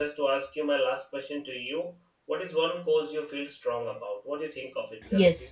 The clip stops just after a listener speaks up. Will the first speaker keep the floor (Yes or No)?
No